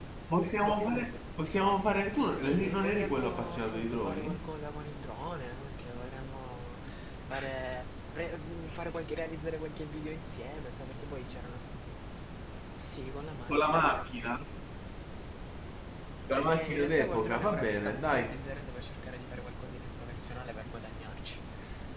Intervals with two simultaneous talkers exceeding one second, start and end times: 2.4-4.5, 16.4-18.3

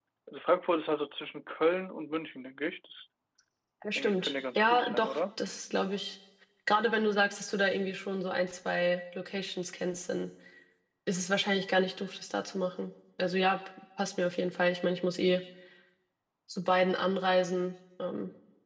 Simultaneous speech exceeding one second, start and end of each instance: 4.0-5.2

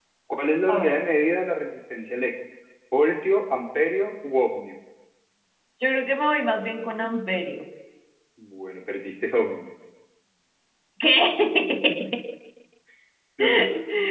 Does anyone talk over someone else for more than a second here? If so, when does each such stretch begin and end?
none

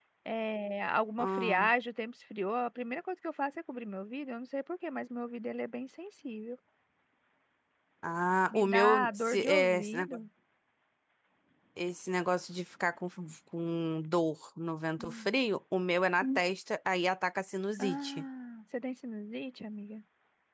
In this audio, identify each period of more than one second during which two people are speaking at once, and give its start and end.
8.5-10.2

